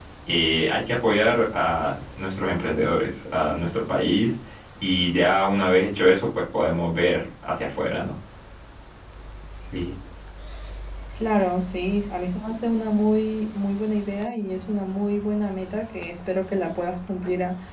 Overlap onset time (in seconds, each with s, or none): none